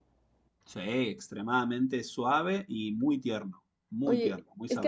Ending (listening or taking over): taking over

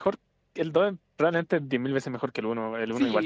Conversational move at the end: taking over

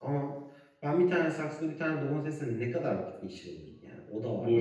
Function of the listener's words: taking over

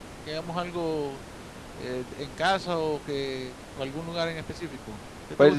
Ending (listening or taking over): taking over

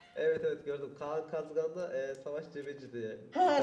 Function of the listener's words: taking over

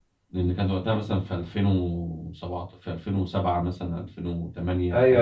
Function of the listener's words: taking over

